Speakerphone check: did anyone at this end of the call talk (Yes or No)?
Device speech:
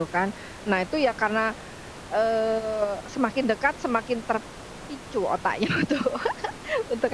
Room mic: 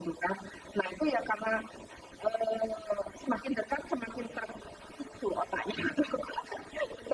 No